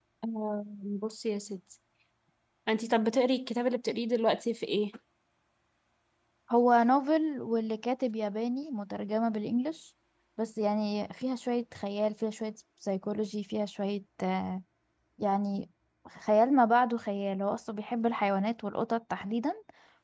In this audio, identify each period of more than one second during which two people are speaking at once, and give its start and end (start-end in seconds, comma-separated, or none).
none